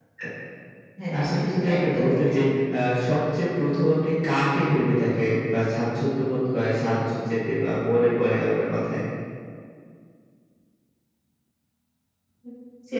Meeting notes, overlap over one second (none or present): present